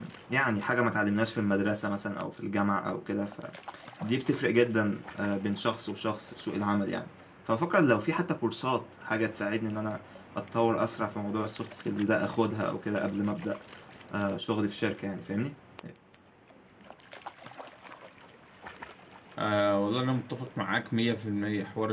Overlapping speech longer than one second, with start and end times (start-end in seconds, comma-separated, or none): none